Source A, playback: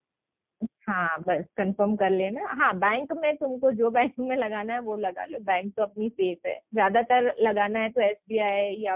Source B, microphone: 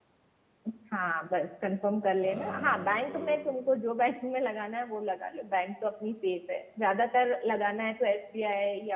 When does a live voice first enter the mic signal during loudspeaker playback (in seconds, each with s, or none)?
2.2 s